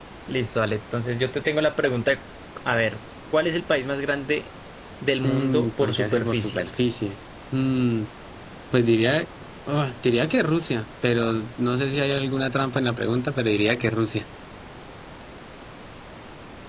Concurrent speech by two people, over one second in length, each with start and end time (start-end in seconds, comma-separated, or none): 5.2-6.7